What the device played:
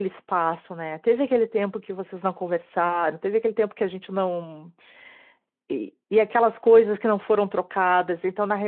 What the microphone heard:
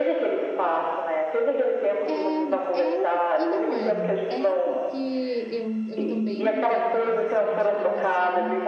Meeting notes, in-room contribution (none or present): present